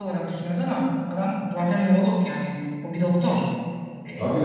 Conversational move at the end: taking over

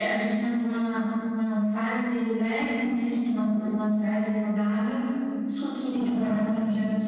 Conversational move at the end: taking over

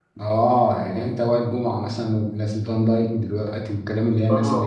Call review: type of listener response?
taking over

